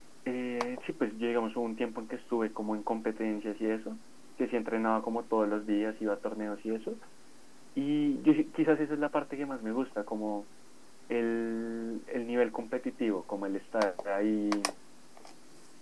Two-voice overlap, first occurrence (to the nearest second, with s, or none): none